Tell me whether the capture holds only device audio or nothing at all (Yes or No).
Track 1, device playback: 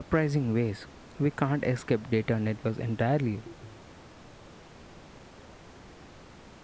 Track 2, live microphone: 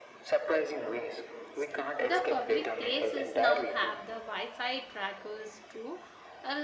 No